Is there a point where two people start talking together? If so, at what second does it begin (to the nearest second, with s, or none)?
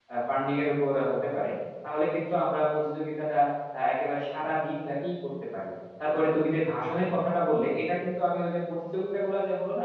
none